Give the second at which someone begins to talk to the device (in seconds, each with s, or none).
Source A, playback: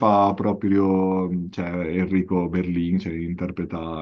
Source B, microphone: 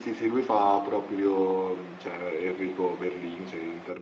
none